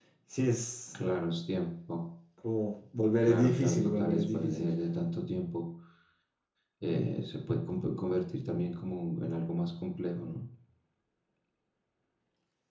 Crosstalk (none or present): present